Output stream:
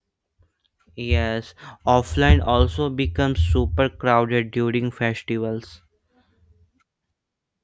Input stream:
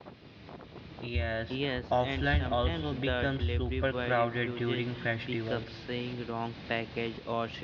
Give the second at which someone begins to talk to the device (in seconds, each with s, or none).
1.5 s